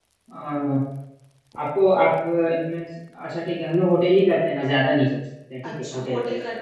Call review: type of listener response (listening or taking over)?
taking over